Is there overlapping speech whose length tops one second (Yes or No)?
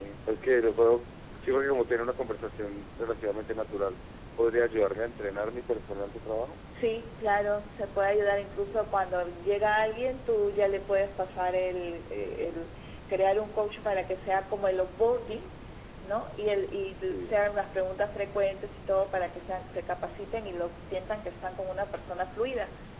No